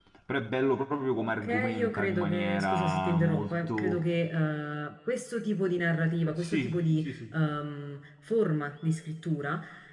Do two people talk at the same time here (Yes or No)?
Yes